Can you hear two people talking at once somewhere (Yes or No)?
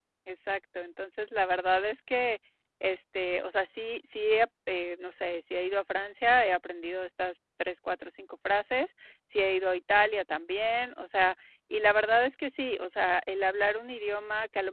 No